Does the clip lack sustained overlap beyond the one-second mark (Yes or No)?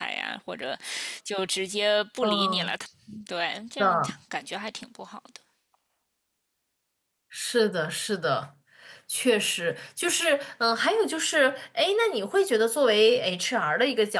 Yes